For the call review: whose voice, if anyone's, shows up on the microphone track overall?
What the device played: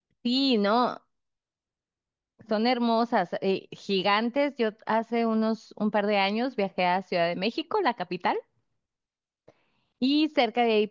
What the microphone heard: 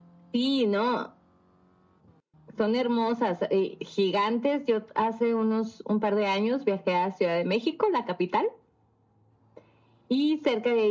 echo only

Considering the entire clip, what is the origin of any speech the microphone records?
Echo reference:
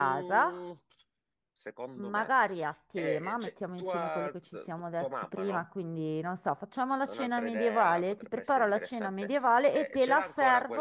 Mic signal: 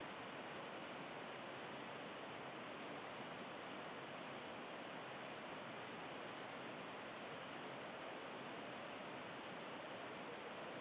neither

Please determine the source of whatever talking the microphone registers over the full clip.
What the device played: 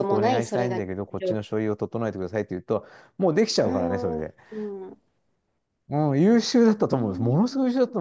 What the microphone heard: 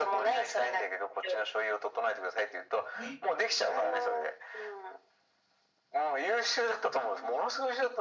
both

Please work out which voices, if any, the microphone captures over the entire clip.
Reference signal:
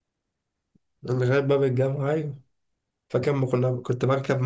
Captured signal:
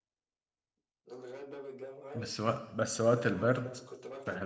both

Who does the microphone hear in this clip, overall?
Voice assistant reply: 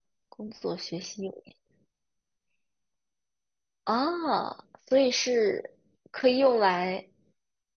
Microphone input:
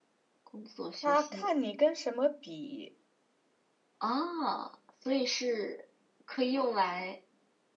both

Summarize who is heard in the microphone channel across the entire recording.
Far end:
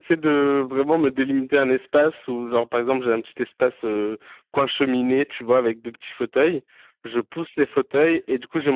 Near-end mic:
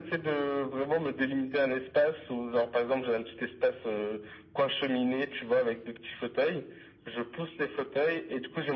echo only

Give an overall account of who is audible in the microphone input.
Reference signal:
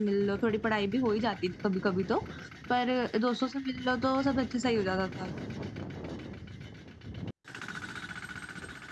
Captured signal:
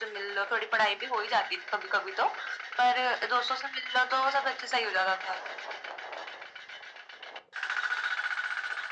echo only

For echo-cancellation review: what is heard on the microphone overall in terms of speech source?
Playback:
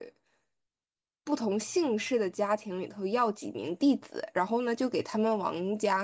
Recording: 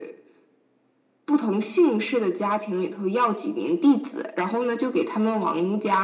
echo only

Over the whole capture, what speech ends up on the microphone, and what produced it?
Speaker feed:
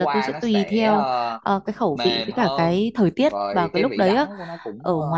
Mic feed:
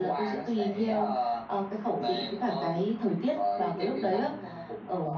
echo only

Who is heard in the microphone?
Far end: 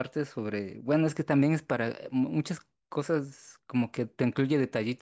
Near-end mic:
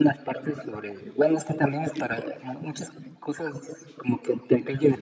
echo only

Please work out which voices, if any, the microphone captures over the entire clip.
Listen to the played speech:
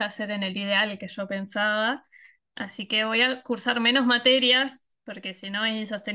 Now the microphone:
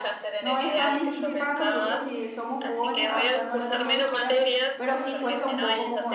both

